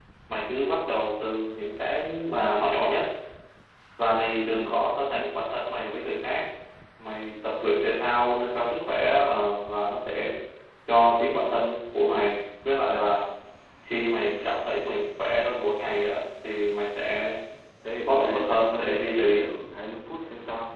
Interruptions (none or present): present